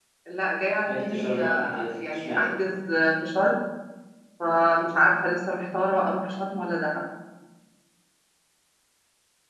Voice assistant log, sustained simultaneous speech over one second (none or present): present